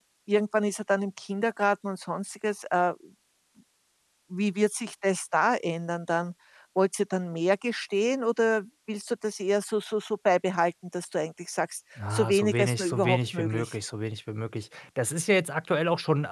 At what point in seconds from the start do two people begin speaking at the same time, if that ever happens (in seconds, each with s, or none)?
12.0 s